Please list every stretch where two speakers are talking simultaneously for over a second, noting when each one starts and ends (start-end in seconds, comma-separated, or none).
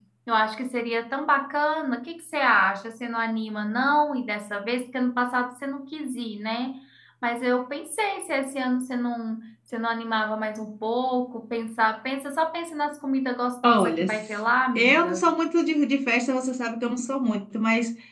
none